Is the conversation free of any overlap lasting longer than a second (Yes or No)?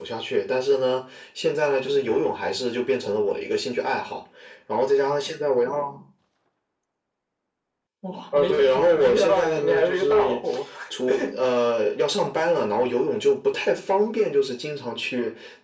No